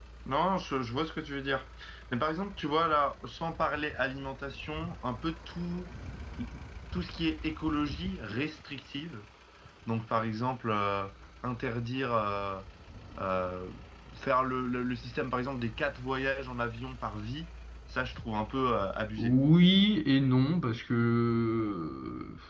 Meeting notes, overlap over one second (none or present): none